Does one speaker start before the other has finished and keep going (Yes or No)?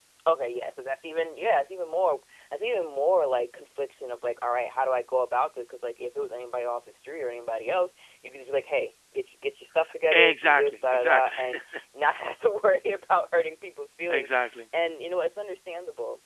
Yes